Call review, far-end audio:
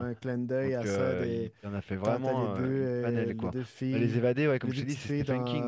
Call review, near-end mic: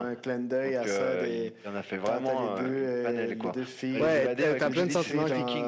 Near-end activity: present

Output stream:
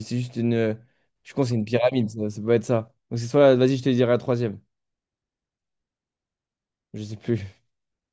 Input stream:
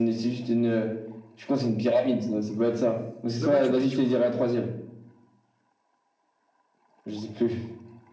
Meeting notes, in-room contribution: present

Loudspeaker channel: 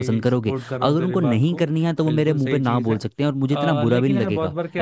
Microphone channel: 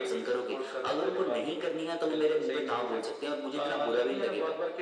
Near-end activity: none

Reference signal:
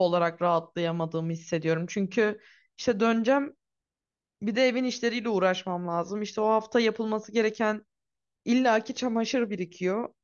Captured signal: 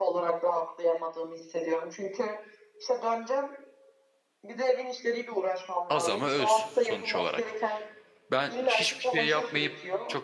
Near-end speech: present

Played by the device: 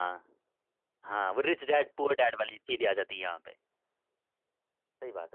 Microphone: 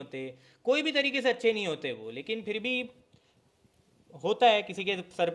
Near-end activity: present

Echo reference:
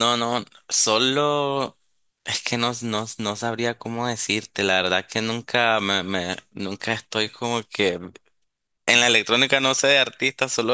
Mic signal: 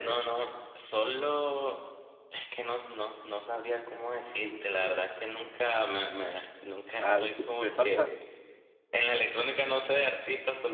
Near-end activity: present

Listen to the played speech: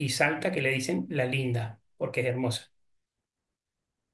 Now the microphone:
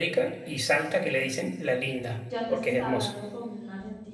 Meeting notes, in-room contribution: present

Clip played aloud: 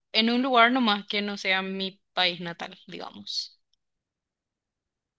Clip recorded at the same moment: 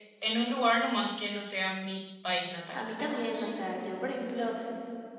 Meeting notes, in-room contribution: present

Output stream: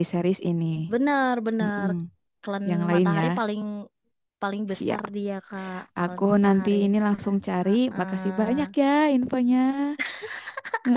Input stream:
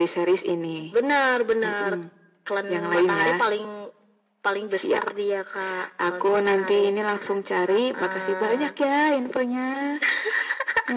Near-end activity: none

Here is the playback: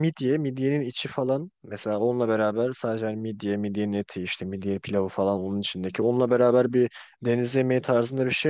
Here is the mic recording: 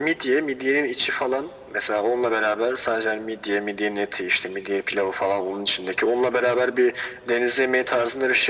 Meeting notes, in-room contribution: none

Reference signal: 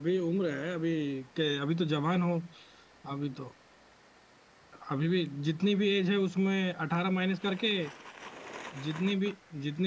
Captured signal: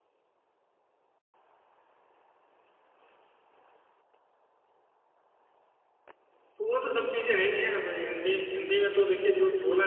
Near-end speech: present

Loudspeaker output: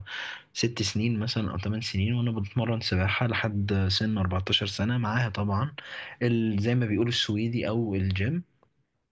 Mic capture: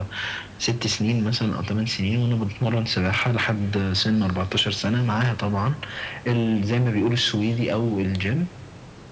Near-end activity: none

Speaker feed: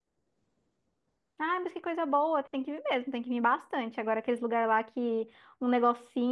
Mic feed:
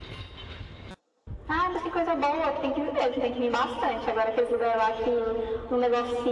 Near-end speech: none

